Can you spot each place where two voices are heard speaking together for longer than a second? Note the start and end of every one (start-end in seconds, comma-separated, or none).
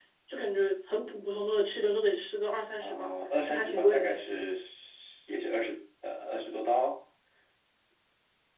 2.8-4.5